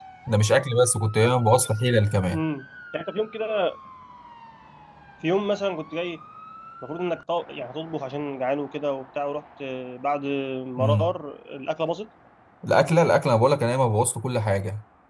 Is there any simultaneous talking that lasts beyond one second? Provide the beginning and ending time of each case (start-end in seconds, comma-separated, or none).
none